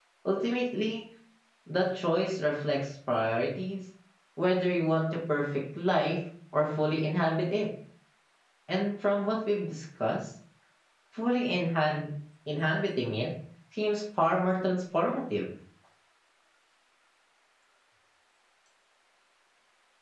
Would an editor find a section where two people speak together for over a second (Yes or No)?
No